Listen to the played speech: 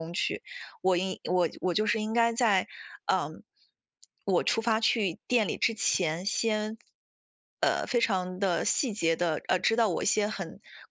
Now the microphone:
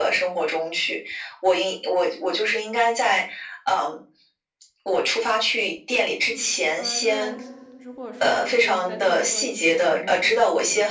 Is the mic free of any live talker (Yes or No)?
No